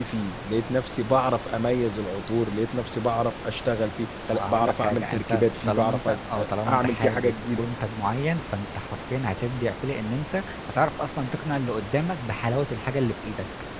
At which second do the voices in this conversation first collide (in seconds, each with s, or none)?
4.3 s